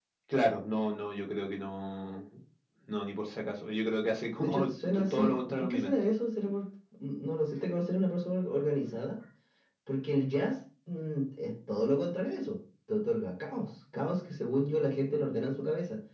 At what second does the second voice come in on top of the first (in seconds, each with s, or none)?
4.4 s